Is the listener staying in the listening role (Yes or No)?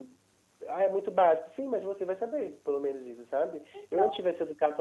Yes